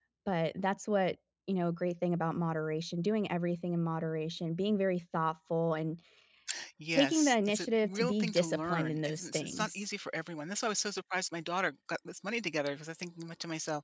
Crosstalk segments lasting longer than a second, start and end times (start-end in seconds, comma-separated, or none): 6.9-9.8